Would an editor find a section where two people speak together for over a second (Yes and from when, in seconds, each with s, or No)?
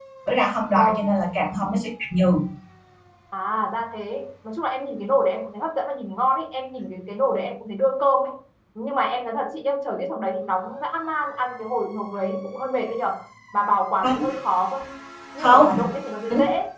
No